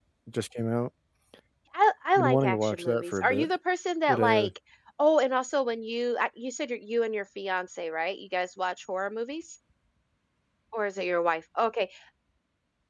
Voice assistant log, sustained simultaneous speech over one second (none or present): present